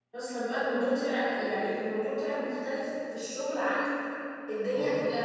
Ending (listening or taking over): listening